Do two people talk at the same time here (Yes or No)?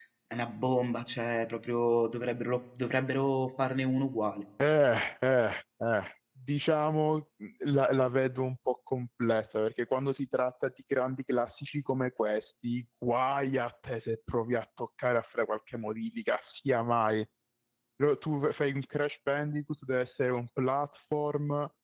No